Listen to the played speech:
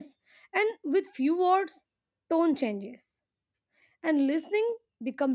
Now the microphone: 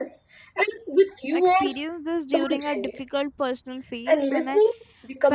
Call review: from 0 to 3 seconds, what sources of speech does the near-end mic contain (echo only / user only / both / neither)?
both